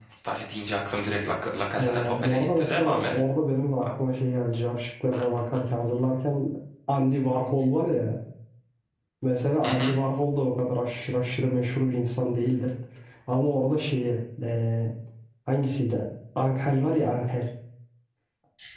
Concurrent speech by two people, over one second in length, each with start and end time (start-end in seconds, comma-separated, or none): 1.8-3.1